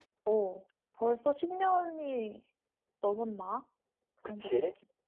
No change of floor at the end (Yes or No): No